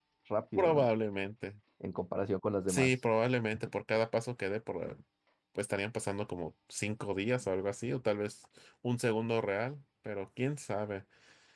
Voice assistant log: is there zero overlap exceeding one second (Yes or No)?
Yes